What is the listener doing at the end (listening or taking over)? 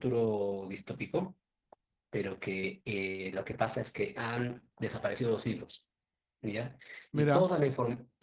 listening